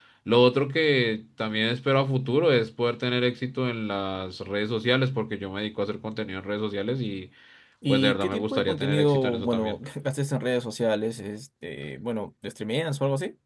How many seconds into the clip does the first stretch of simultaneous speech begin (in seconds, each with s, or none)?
7.9 s